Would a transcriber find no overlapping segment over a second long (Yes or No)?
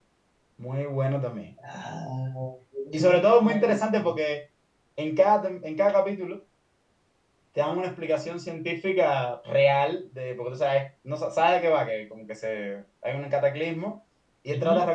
No